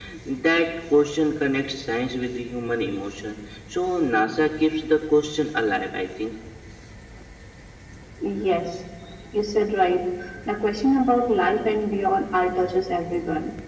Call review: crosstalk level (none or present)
none